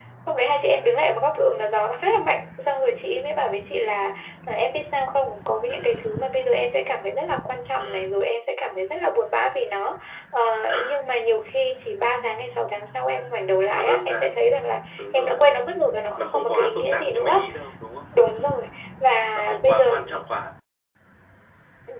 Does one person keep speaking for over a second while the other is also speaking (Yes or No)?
Yes